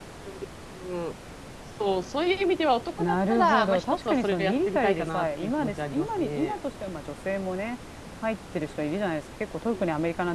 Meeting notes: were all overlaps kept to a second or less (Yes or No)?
No